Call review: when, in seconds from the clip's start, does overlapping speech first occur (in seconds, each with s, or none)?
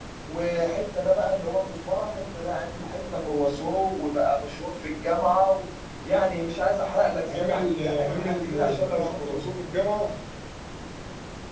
7.3 s